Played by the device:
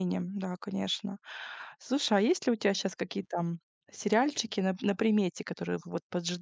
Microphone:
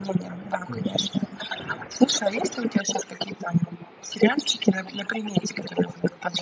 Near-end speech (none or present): present